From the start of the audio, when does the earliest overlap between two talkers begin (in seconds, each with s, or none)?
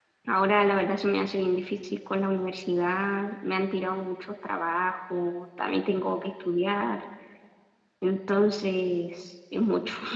none